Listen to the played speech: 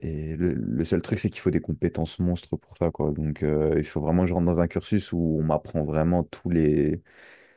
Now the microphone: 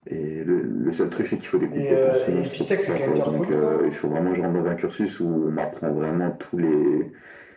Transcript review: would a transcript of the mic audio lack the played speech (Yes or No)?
No